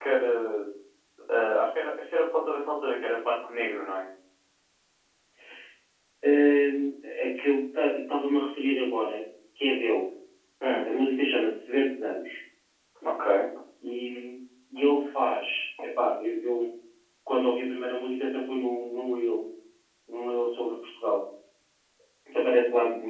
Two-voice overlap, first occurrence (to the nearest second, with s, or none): none